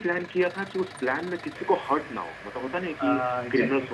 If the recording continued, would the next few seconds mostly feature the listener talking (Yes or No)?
No